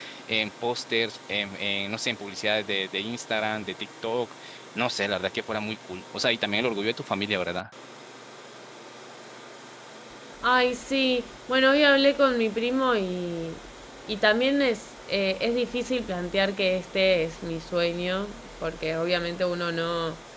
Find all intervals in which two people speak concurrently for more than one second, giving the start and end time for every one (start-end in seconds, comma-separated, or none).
none